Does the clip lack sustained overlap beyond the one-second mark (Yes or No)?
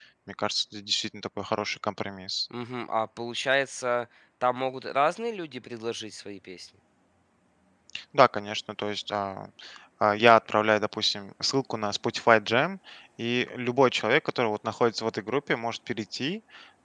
Yes